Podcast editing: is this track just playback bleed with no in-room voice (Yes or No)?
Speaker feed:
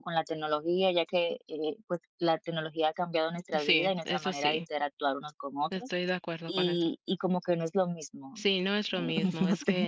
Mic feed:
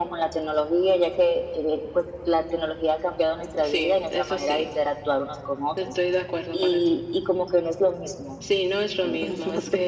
Yes